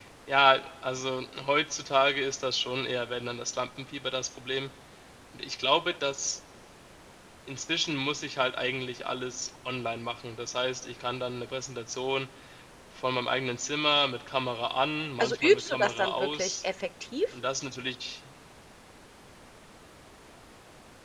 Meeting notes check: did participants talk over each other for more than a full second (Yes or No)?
Yes